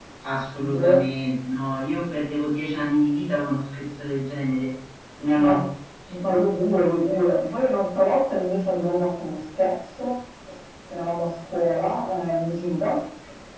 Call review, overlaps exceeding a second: none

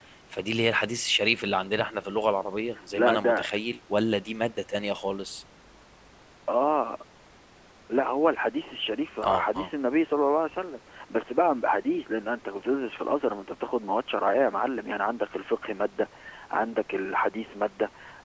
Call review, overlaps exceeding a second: none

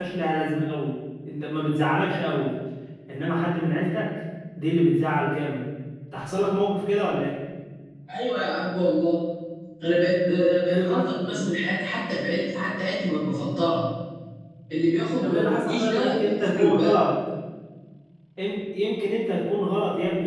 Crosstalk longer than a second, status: present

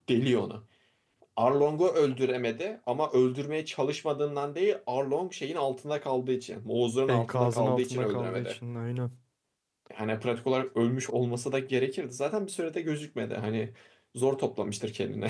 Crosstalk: present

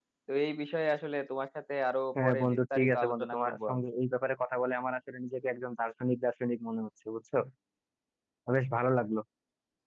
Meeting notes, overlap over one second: present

